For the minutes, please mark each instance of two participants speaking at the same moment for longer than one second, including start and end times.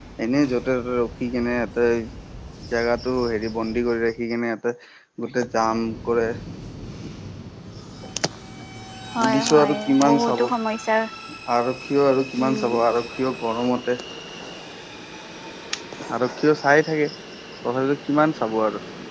9.2-10.4

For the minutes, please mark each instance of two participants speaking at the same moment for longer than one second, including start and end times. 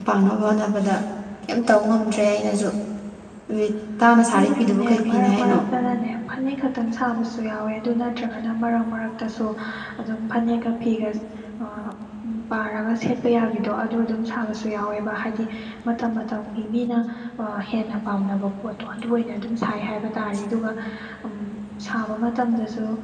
4.3-5.6

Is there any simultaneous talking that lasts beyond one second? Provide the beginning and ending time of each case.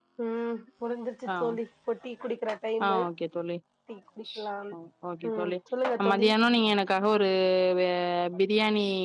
none

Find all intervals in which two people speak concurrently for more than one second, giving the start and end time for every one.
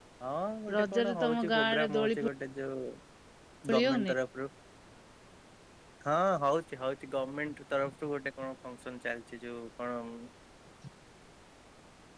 0.8-2.3

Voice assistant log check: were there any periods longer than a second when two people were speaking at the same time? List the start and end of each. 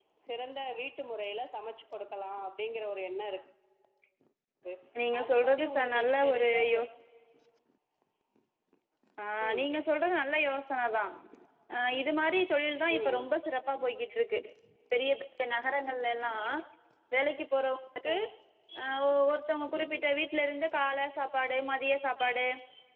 5.2-6.8

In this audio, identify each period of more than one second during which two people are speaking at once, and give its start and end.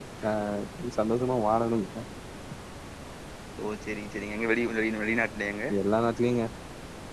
none

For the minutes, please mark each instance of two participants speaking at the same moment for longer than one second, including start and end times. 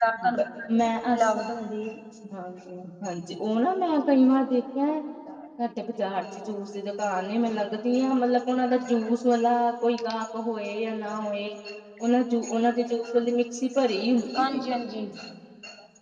none

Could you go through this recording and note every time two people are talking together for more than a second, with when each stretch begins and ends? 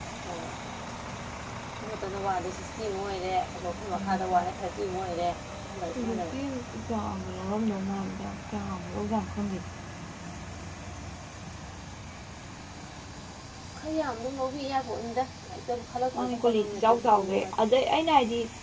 16.2-17.6

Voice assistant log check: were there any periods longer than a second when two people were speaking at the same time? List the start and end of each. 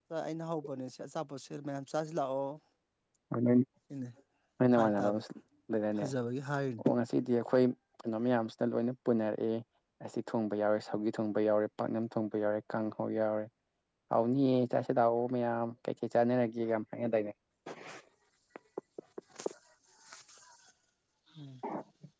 none

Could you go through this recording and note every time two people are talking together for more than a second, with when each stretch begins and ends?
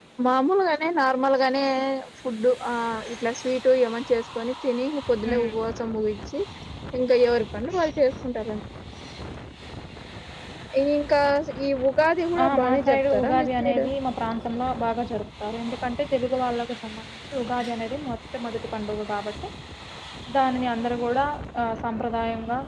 12.4-13.8

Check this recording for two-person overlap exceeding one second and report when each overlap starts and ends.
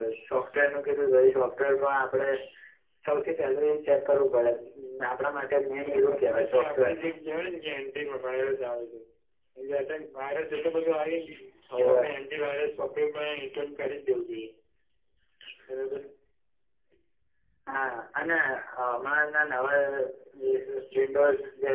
5.8-7.1

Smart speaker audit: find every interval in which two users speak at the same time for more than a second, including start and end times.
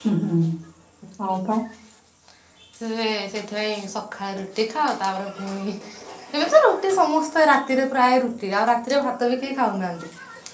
none

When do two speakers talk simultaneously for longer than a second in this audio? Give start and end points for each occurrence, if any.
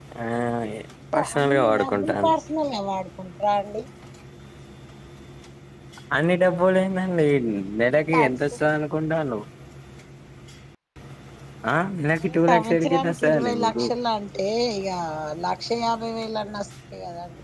1.1-2.3, 12.2-13.8

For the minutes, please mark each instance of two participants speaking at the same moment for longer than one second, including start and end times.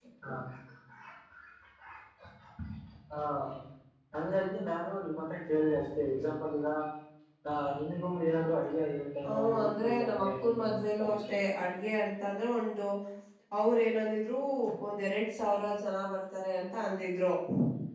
9.2-11.3

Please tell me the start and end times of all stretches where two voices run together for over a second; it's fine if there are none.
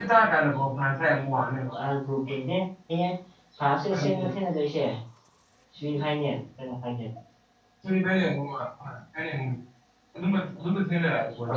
none

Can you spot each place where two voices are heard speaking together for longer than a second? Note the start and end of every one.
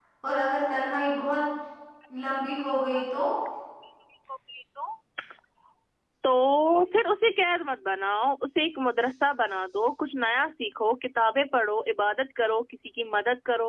none

